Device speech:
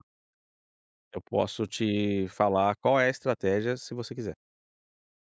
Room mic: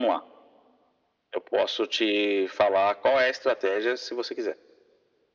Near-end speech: none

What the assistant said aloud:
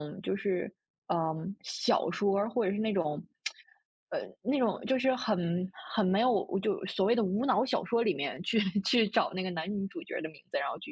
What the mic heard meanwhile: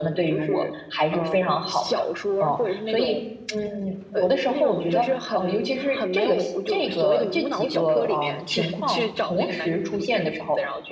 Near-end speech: present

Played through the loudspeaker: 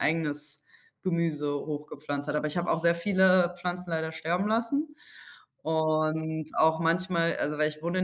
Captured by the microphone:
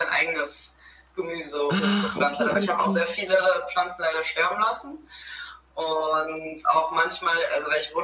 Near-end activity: present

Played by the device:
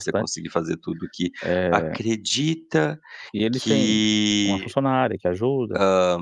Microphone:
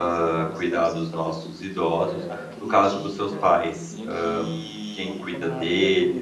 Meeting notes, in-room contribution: present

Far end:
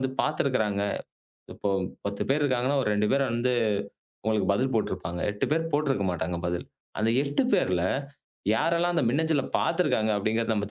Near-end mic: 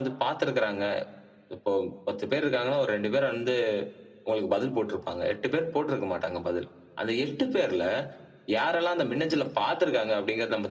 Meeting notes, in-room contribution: none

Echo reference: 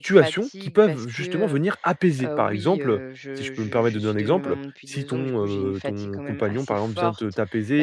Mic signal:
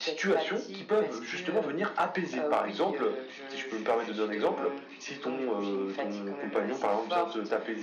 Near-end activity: none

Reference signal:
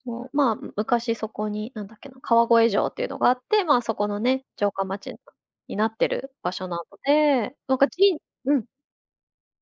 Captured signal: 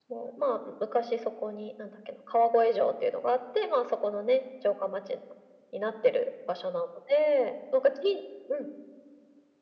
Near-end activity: none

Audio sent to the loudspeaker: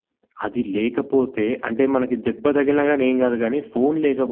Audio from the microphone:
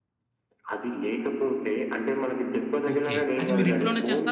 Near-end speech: present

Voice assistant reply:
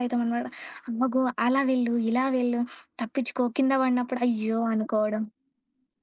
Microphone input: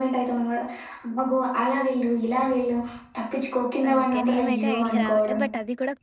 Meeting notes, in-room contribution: present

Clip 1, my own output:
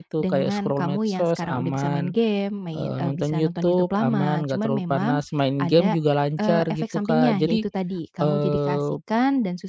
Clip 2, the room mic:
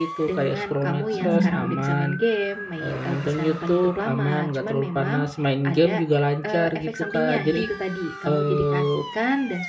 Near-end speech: present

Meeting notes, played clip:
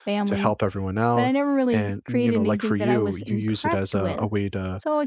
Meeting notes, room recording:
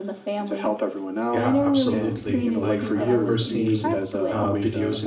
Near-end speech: present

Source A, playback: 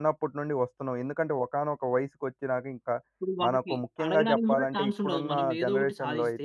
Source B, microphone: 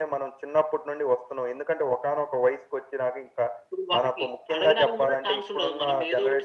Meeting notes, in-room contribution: none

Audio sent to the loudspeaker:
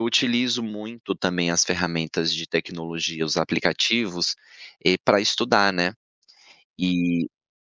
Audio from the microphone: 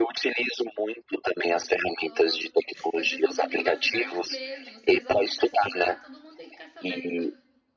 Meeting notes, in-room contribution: present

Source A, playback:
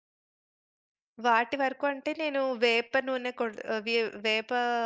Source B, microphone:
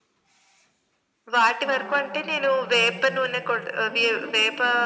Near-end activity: present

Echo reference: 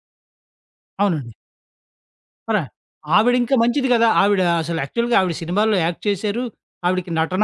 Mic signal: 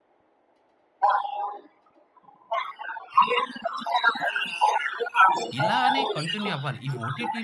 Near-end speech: present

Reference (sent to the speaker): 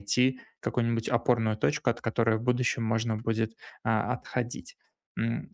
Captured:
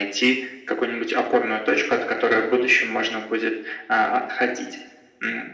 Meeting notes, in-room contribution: none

